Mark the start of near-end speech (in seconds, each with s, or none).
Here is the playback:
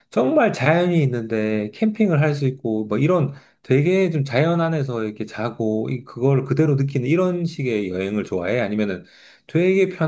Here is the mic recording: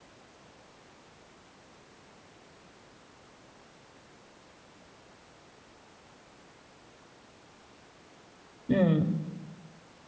8.7 s